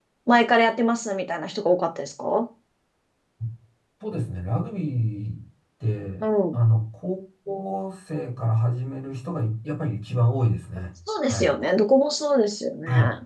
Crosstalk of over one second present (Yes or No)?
No